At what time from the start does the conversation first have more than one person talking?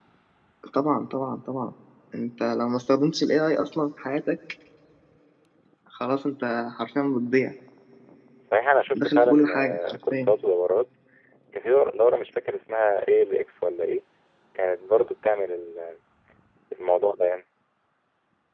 9.0 s

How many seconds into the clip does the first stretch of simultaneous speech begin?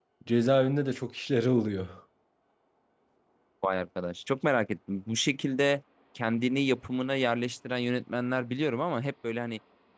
none

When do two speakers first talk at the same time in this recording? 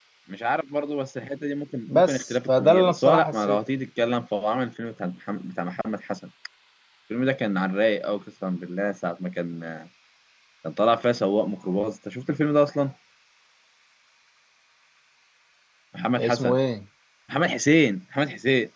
1.9 s

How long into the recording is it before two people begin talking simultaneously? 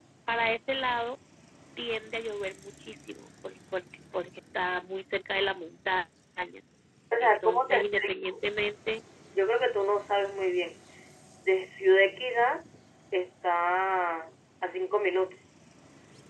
7.2 s

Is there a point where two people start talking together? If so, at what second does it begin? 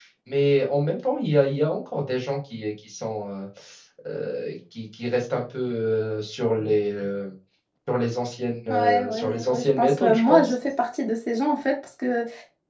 8.7 s

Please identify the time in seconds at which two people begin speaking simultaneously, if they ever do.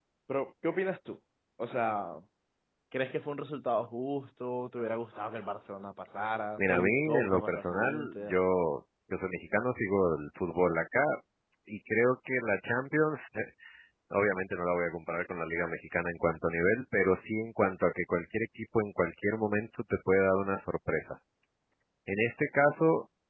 6.6 s

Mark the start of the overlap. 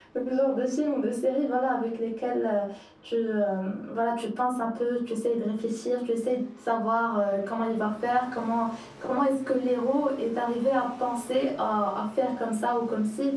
none

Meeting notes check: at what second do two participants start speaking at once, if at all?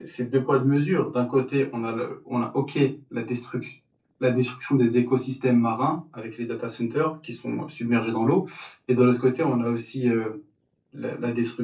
none

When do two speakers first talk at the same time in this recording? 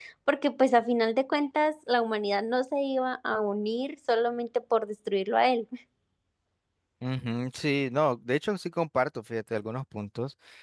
none

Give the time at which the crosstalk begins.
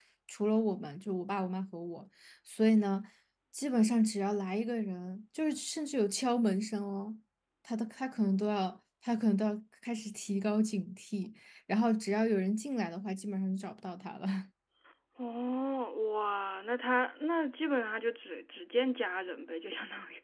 none

